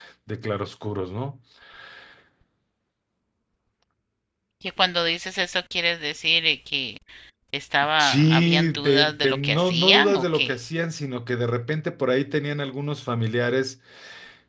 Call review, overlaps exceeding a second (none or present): present